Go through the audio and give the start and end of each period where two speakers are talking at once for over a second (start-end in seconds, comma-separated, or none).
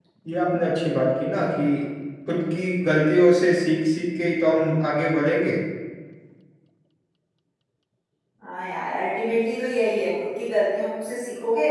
none